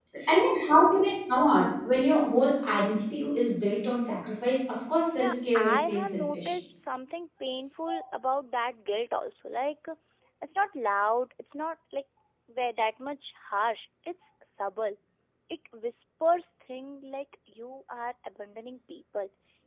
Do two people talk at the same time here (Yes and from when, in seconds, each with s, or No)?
Yes, from 5.1 s